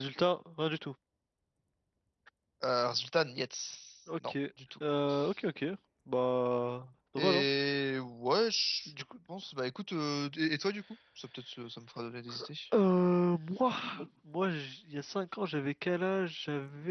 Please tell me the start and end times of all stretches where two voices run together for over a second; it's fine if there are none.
none

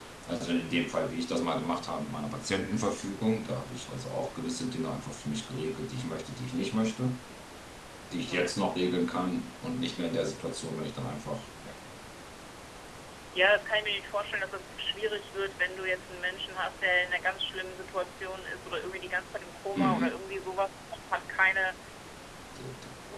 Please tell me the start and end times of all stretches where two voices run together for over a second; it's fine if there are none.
none

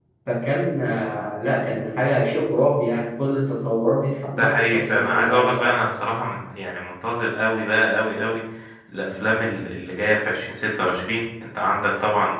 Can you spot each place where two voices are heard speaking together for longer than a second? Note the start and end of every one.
4.4-5.8

